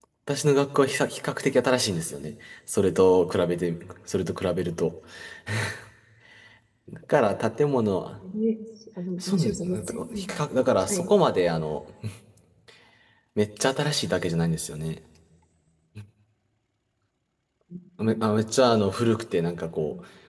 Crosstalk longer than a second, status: present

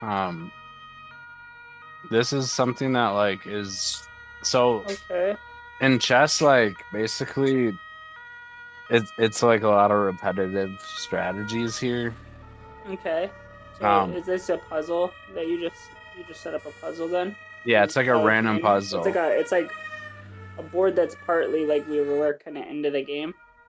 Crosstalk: present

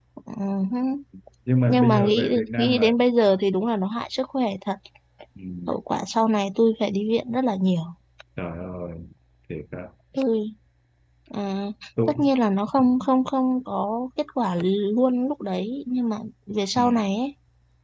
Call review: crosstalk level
present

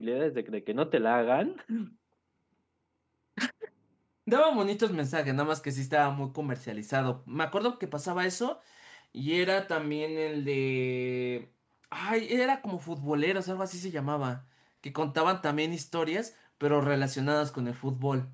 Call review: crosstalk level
none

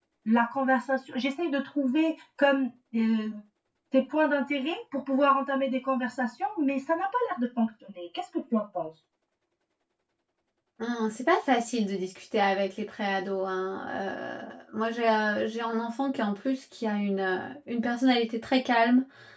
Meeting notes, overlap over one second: none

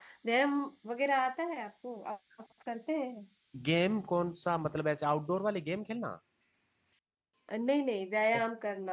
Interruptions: none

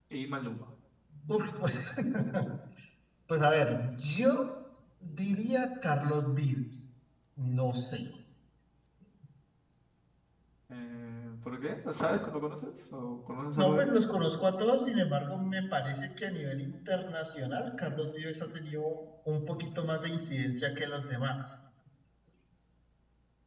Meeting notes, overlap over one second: none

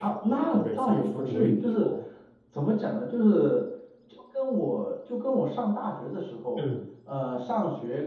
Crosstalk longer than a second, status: present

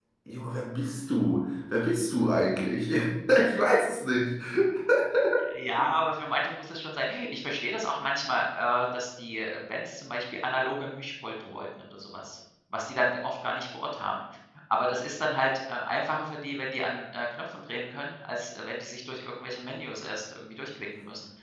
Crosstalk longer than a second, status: none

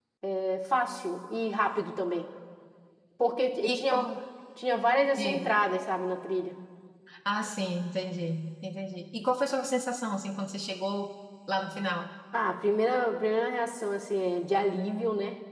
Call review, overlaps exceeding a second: none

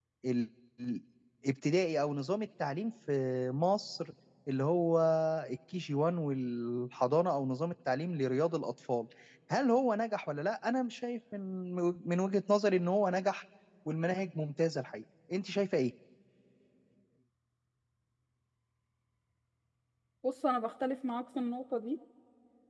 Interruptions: none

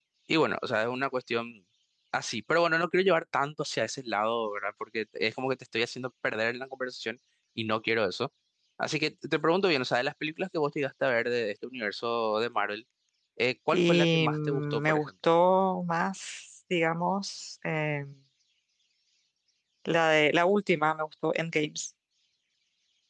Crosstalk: present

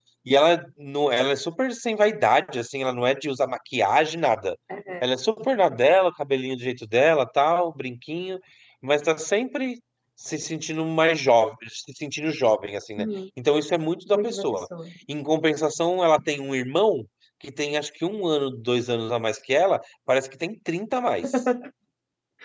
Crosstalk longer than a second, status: none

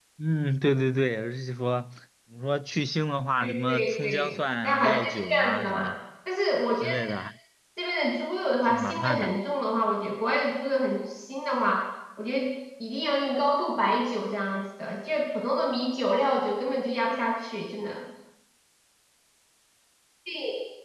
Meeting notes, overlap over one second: present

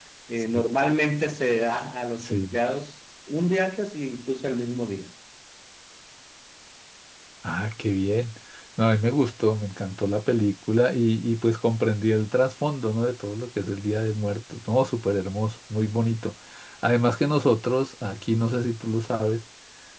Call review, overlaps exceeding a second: none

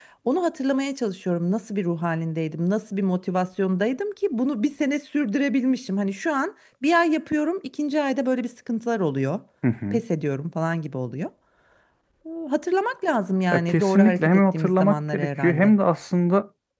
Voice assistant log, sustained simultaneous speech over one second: present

